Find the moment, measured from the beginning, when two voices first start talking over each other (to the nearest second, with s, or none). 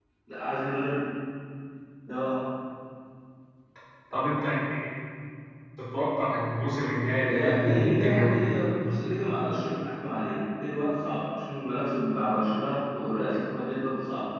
7 s